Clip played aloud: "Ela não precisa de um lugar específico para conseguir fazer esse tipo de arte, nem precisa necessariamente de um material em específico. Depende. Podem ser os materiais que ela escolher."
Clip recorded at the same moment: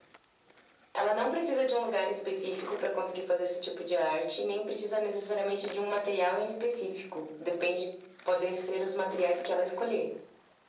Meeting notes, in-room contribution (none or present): none